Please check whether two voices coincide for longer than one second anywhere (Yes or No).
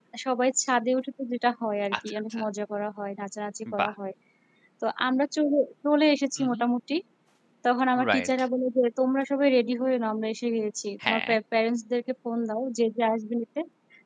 No